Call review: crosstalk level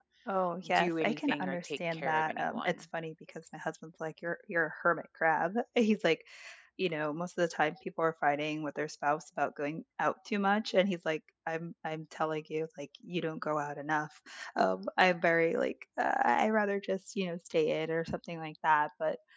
present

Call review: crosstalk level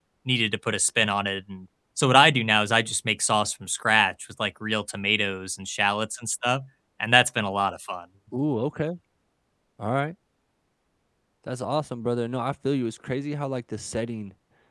none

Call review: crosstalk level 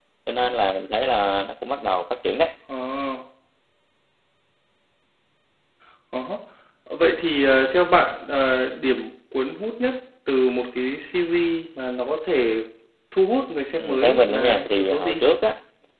present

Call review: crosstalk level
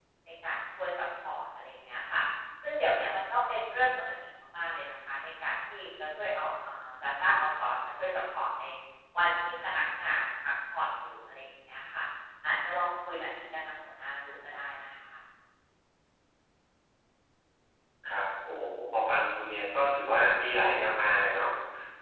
none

